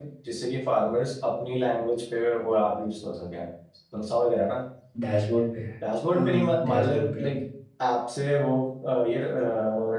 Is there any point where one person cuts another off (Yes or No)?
Yes